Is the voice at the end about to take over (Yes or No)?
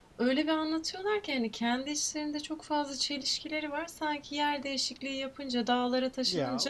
No